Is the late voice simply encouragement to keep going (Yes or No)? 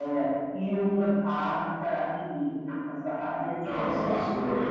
No